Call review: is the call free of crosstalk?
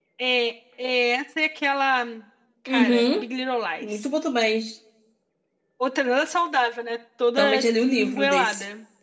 No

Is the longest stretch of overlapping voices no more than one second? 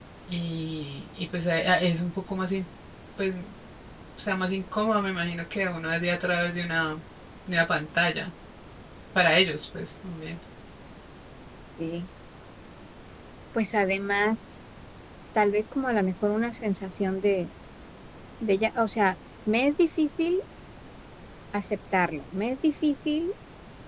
Yes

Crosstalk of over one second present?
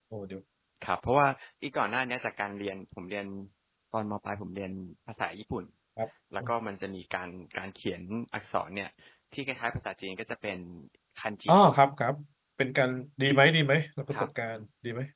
No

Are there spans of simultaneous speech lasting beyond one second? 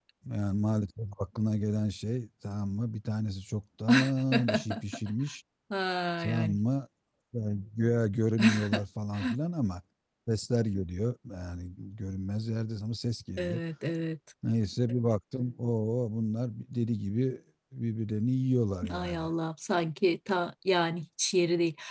No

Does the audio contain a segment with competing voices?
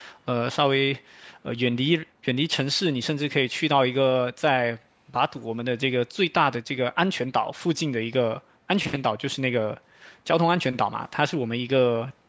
No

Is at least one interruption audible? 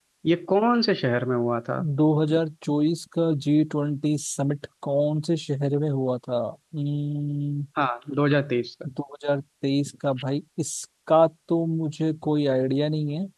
No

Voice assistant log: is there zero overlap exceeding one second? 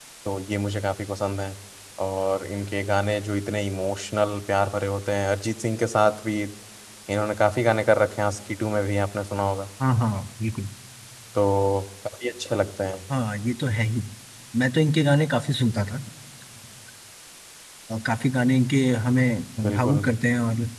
Yes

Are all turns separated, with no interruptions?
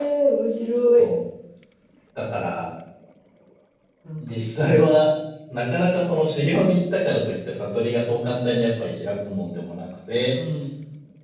Yes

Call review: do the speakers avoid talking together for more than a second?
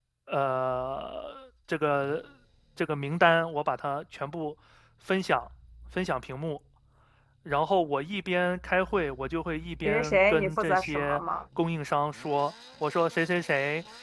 No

